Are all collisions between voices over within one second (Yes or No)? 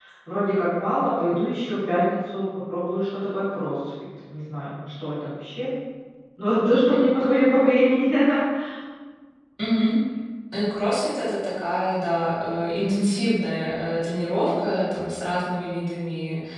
Yes